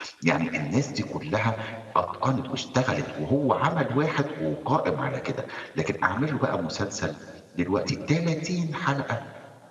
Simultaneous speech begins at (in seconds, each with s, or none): none